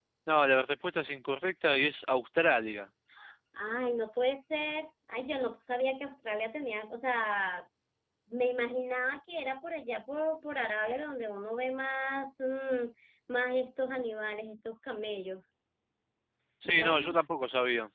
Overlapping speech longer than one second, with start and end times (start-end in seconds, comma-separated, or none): none